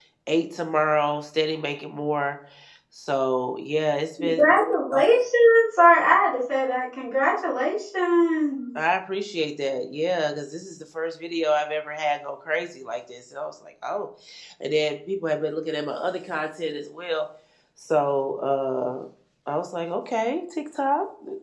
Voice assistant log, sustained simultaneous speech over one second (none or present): none